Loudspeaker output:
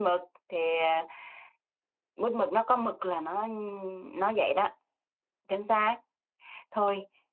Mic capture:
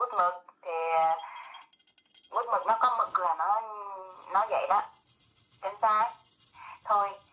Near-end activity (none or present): none